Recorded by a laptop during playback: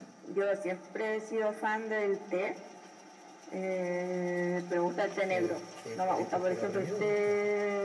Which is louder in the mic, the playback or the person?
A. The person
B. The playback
B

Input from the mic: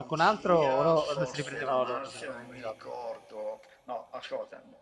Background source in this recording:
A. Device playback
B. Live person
A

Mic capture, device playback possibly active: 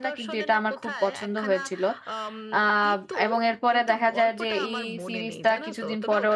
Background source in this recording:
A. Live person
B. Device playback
B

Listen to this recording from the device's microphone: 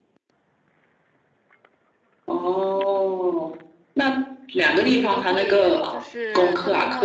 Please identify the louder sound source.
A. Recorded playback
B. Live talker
A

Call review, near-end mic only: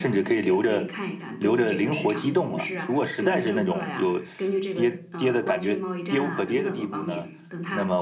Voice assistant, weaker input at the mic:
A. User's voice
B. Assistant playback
B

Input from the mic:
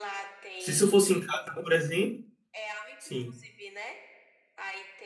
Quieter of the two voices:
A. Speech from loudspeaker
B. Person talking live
A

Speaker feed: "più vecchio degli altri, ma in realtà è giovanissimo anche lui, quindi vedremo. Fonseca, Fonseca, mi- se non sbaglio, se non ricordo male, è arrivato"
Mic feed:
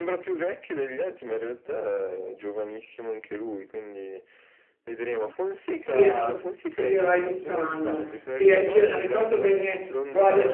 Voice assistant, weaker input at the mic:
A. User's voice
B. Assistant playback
B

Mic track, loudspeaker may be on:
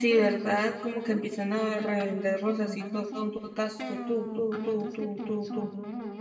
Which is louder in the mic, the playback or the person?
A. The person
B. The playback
A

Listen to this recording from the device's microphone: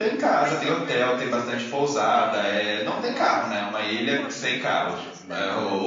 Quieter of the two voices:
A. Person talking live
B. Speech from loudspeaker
A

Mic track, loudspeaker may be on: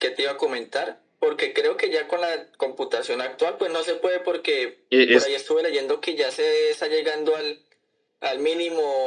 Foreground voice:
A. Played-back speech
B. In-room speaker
B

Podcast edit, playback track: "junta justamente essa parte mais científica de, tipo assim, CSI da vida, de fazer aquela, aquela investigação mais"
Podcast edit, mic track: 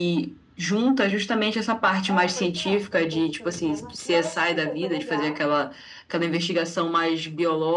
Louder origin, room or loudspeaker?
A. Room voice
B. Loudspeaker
B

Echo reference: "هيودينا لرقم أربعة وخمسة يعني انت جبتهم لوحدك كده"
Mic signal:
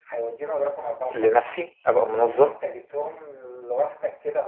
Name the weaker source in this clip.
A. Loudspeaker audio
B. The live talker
A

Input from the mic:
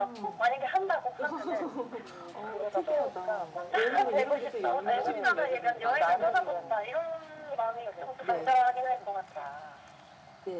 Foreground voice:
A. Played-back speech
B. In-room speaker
A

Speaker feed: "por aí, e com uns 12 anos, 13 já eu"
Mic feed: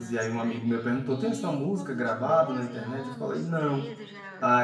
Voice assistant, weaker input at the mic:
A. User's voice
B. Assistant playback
B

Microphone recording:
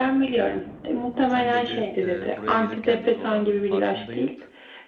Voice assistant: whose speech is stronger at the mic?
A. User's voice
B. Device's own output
B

